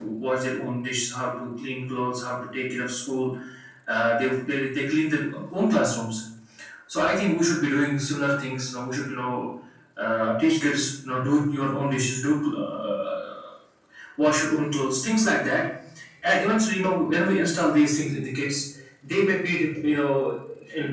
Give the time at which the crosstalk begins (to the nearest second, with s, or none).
none